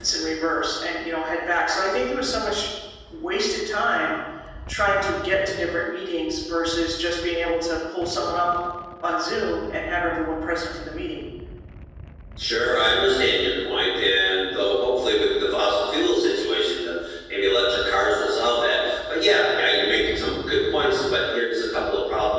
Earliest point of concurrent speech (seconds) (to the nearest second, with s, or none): none